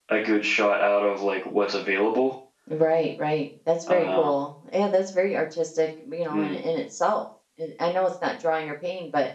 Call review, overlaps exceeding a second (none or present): none